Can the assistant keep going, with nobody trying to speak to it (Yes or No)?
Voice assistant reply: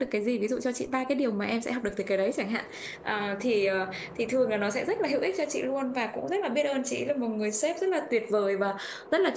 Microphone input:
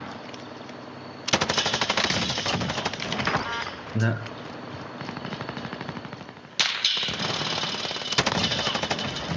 No